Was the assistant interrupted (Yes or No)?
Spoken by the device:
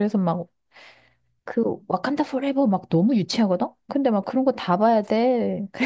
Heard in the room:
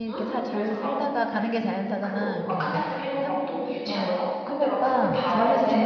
Yes